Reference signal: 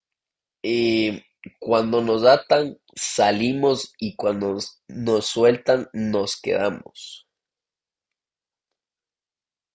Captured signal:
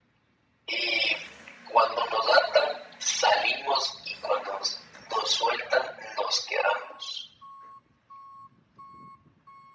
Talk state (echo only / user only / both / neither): echo only